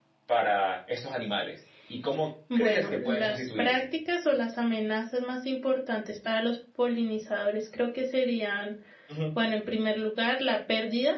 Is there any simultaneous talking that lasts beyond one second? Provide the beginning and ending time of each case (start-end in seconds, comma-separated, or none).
2.6-3.8